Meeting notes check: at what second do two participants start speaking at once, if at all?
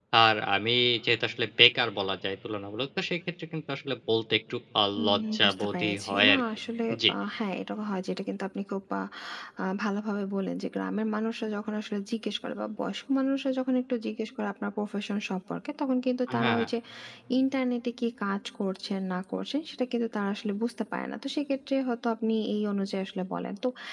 5 s

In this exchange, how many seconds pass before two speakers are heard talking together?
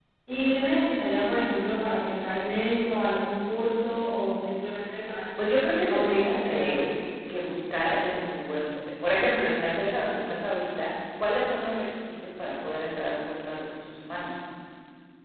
5 s

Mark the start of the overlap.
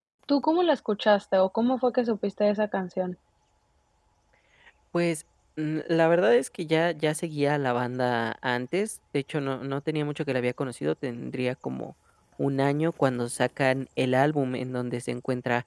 none

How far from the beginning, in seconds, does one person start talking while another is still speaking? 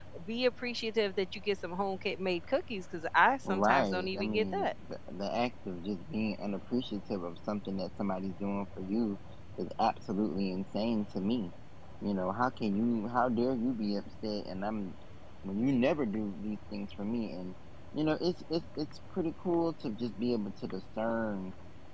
3 s

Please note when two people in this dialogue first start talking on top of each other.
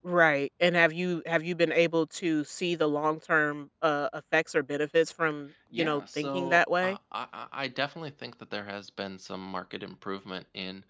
6 s

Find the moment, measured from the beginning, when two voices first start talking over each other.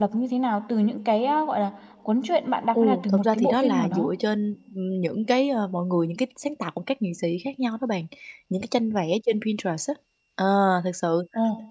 3 s

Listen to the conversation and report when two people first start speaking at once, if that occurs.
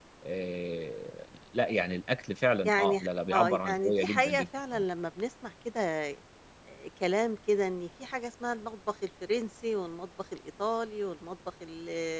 3 s

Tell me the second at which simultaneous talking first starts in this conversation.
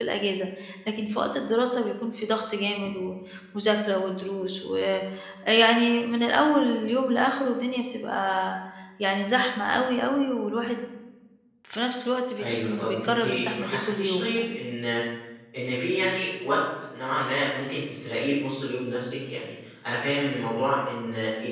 12 s

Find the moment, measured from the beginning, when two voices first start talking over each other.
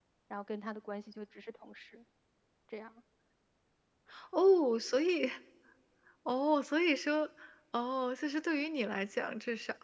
none

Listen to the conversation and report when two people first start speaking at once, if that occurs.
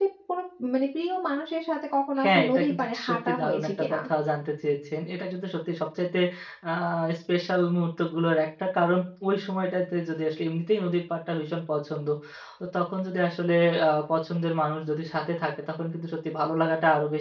2 s

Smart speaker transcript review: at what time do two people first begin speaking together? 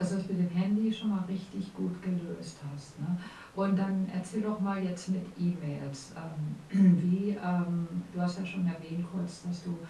none

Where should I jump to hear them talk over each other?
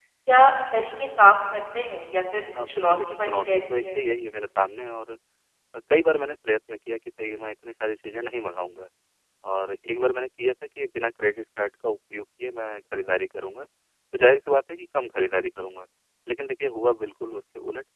3 s

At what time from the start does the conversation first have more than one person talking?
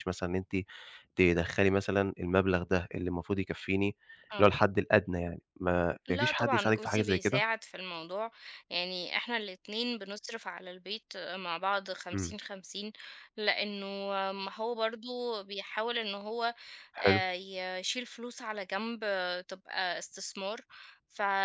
6 s

